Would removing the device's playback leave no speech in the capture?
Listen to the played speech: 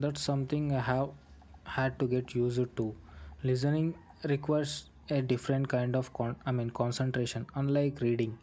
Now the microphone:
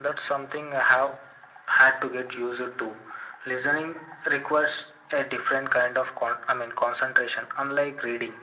Yes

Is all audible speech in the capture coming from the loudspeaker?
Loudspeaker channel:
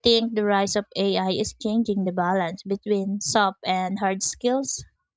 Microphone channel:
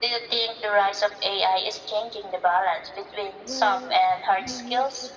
No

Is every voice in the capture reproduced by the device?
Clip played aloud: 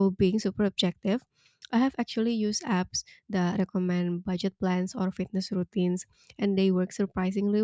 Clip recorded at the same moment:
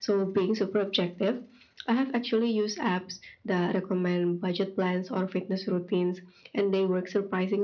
Yes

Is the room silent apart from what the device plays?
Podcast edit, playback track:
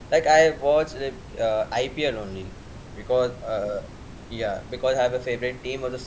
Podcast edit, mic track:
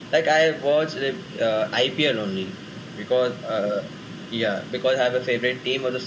Yes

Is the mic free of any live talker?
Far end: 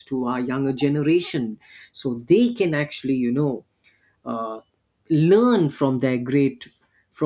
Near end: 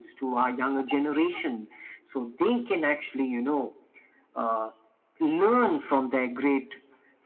Yes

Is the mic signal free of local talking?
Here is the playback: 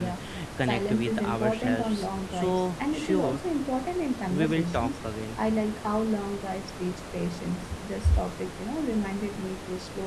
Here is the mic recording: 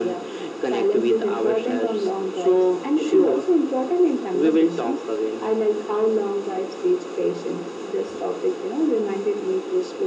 Yes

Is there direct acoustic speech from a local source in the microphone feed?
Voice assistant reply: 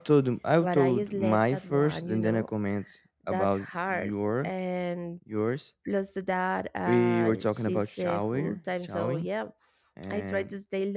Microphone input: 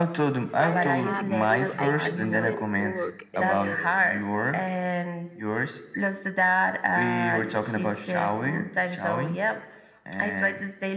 Yes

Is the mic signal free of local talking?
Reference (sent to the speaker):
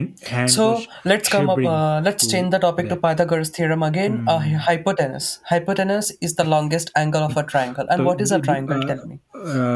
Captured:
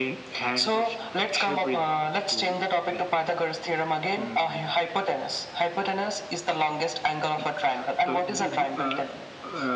Yes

